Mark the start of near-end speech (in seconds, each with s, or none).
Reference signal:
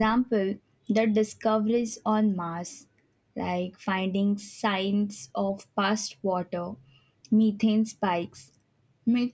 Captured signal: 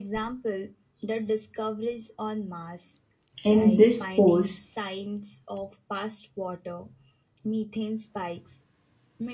3.4 s